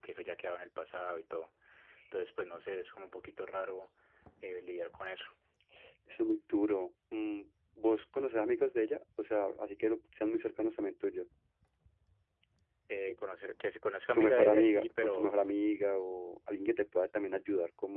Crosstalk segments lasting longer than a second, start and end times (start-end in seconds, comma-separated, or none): 14.1-15.3